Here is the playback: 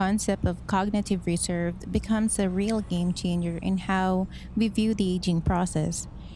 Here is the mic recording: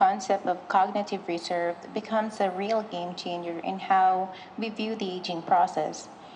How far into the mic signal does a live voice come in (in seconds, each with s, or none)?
none